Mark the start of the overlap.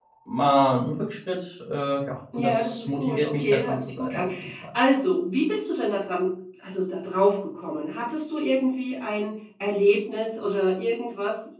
2.3 s

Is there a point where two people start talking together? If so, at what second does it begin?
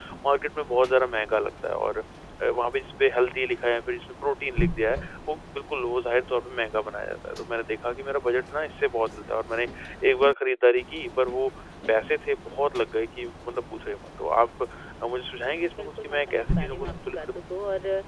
15.8 s

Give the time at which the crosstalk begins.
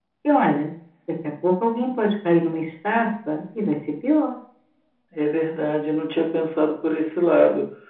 none

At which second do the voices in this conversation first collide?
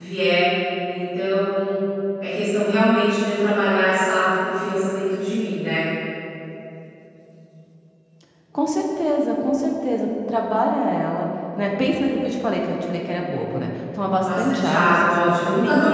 14.2 s

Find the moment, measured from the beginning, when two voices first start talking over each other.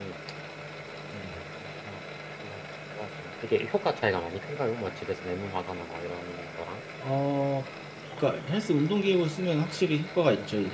none

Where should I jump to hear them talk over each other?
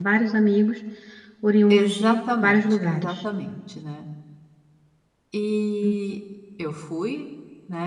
1.7 s

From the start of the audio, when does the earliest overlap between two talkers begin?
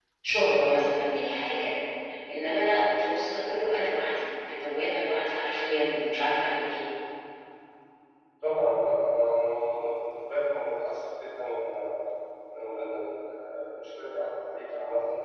none

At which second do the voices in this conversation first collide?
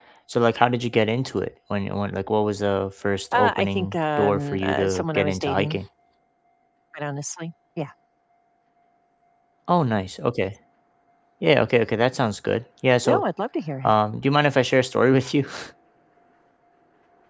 3.3 s

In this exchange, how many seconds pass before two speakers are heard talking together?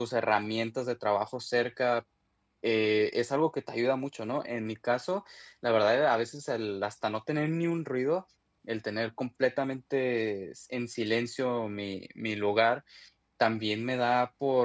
none

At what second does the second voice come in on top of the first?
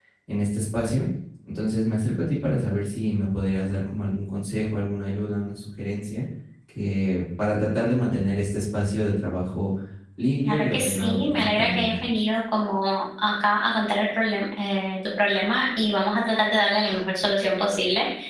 10.4 s

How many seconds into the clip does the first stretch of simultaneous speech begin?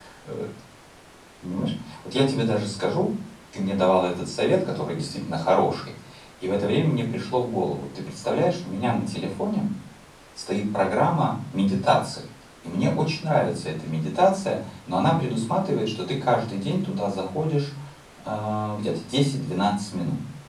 none

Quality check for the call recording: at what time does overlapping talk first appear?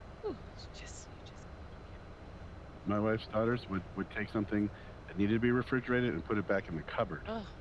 none

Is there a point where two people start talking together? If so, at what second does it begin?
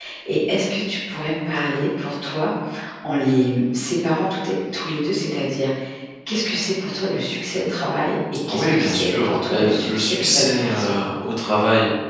8.5 s

